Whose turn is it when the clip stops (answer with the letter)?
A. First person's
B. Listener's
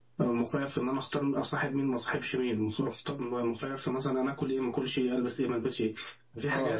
B